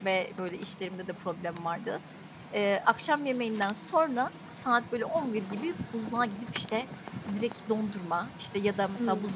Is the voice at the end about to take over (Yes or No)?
No